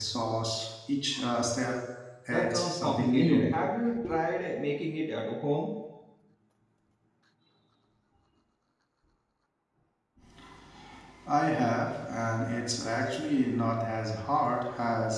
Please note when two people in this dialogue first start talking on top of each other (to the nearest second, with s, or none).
2 s